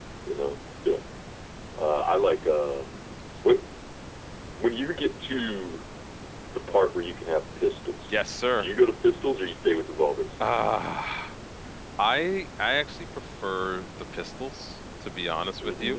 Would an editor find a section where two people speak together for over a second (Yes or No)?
No